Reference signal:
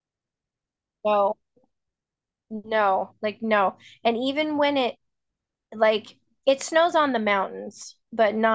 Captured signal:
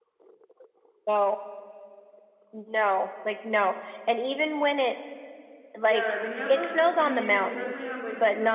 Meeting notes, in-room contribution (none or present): present